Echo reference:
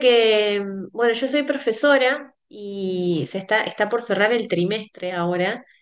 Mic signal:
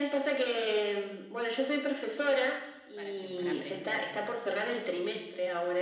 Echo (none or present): present